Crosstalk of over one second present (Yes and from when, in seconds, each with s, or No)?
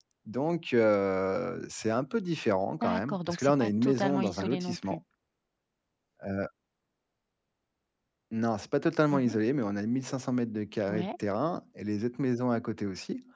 Yes, from 2.8 s